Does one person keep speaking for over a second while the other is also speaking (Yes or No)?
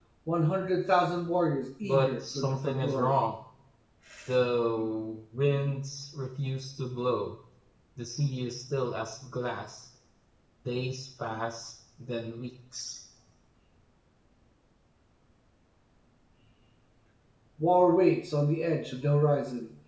Yes